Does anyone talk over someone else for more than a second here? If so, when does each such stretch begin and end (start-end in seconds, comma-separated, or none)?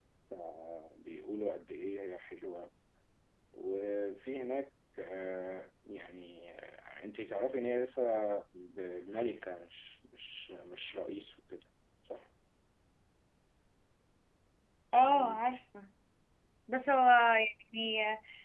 none